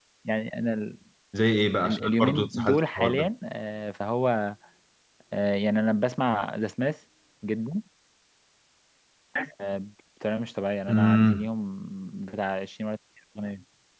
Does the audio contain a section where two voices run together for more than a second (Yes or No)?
Yes